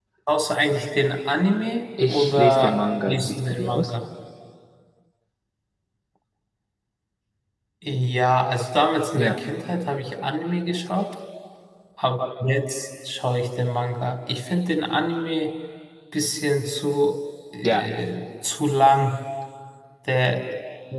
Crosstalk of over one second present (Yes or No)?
Yes